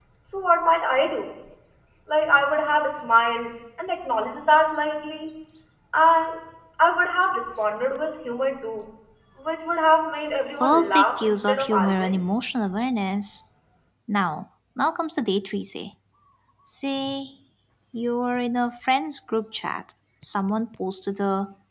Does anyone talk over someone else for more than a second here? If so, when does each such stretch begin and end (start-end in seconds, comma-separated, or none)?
10.6-12.2